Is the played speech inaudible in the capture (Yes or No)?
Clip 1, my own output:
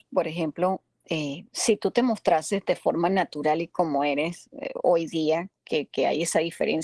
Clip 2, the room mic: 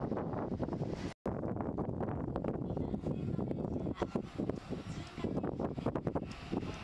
Yes